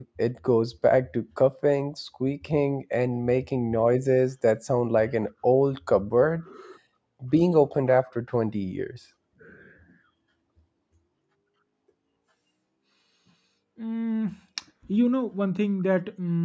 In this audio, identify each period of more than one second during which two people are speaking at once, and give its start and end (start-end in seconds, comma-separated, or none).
none